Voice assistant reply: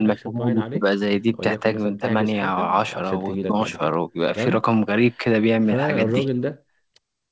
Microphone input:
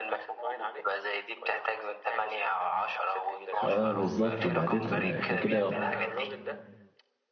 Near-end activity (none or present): present